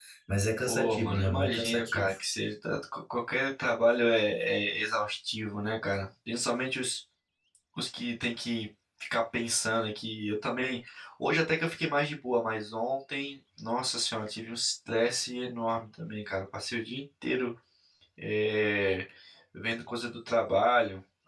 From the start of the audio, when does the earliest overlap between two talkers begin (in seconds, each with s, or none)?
0.7 s